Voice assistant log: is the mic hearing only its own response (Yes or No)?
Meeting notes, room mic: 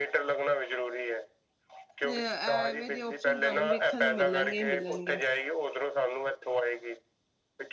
No